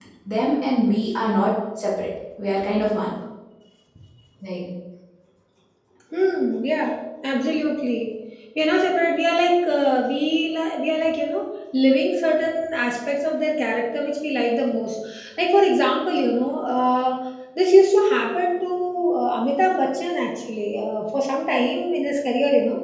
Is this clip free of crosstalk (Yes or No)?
Yes